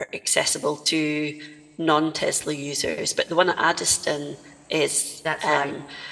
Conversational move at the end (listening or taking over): listening